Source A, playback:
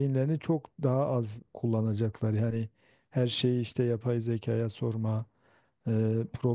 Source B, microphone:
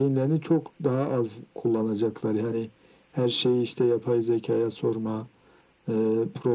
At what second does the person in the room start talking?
none

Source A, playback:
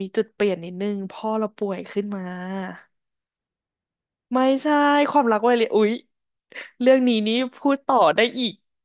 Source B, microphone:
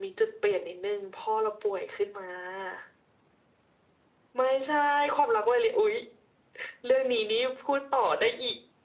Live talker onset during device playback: none

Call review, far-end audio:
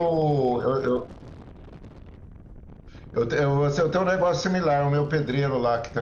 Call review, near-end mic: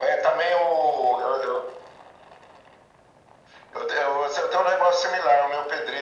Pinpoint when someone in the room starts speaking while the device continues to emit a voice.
none

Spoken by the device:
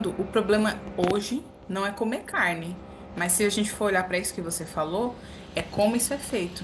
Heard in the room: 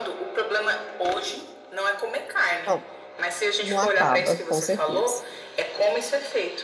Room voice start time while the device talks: 2.6 s

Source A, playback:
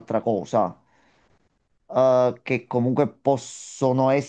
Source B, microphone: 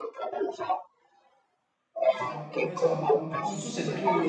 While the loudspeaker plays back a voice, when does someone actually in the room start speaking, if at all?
2.0 s

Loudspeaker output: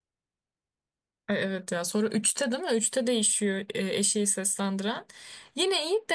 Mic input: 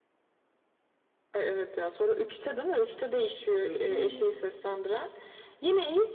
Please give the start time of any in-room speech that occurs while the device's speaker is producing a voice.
3.4 s

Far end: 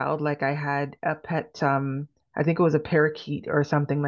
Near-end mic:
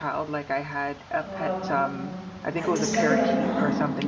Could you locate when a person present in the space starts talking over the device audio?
1.2 s

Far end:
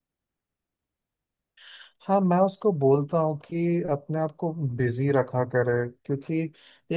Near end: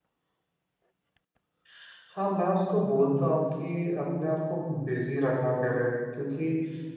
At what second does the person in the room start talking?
none

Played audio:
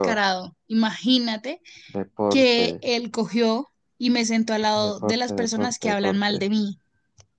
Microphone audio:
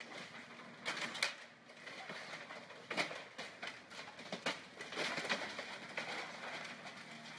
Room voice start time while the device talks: none

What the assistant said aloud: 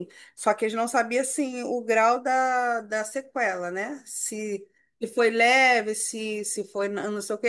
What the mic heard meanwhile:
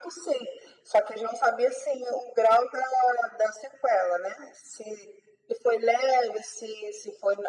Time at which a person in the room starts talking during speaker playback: none

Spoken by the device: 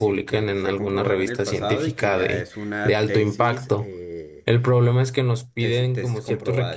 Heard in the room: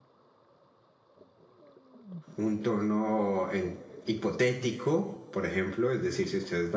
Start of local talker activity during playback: 2.4 s

